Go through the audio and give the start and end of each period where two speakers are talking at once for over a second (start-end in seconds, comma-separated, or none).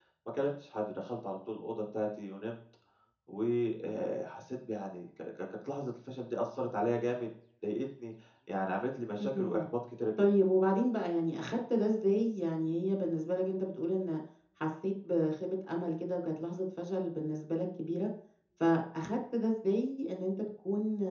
none